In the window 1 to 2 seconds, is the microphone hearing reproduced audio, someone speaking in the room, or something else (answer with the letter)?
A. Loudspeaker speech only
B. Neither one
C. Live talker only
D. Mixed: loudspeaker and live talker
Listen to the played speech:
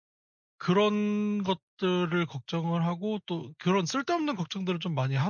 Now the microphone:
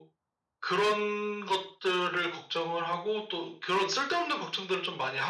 A